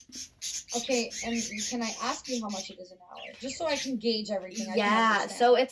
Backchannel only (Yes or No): No